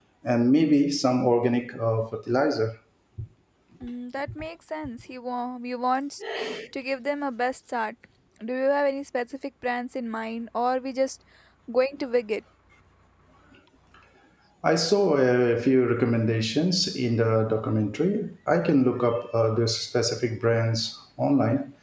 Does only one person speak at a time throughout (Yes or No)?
Yes